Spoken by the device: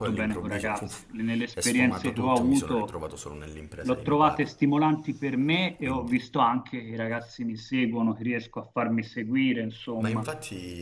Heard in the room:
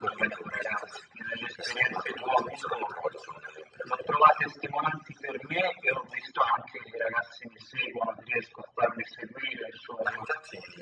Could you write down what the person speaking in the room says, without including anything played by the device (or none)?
none